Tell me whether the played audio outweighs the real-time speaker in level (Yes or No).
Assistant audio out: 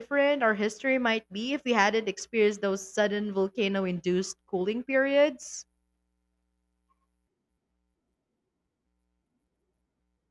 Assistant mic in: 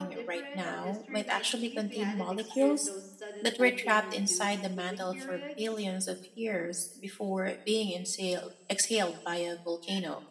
No